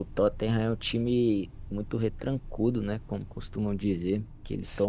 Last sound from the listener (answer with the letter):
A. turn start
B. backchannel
B